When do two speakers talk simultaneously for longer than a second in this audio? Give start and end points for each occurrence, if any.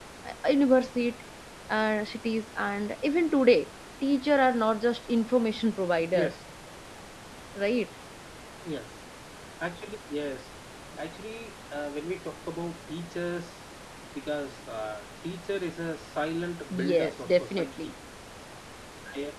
16.7-17.9

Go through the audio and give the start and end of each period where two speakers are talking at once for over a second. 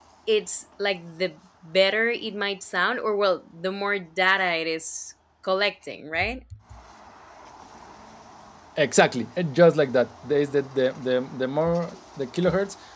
none

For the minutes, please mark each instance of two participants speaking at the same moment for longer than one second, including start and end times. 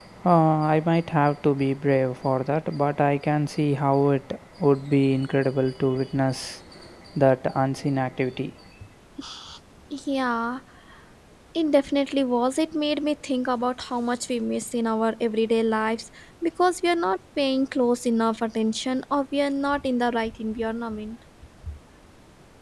none

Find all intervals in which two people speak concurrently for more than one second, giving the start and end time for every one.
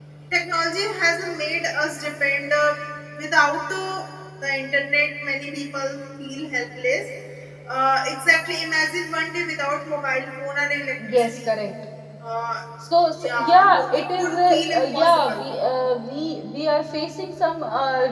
13.2-15.4

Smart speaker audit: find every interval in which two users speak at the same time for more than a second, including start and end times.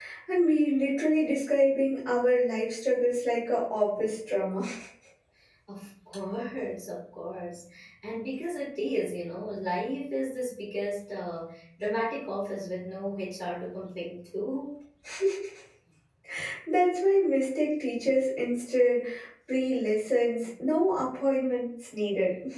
none

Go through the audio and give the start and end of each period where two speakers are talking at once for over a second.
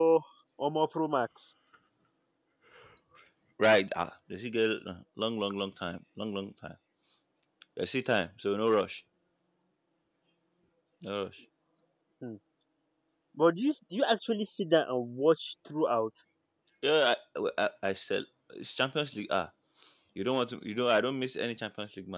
none

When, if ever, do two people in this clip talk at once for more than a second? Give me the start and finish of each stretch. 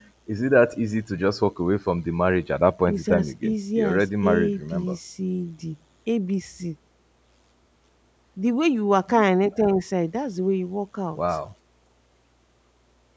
2.9-5.0

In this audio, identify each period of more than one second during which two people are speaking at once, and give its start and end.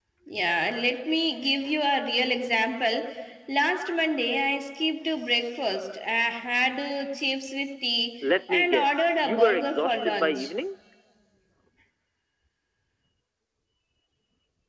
8.5-10.5

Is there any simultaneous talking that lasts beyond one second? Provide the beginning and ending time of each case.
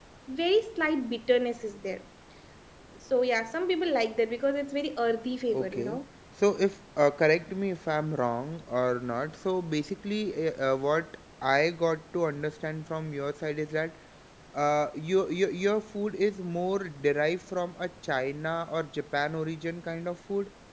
none

